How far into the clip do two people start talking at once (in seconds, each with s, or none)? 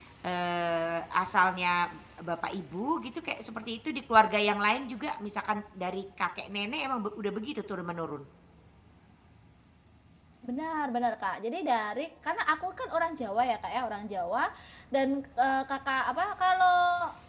none